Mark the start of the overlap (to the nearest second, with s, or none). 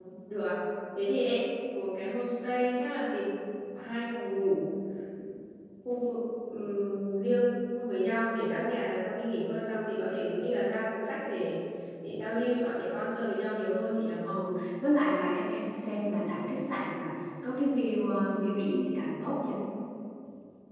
none